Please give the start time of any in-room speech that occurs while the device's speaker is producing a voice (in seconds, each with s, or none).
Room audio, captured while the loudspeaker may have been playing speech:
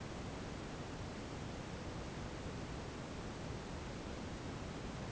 none